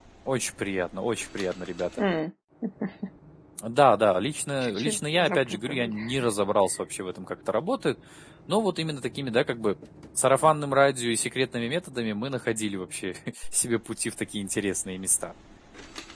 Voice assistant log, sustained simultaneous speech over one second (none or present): present